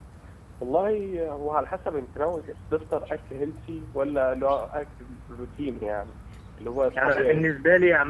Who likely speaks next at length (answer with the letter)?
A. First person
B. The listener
B